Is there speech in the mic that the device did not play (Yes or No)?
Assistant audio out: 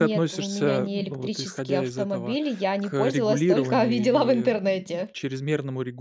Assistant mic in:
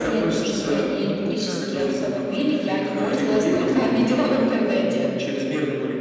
Yes